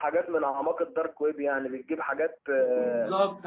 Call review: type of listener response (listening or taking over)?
taking over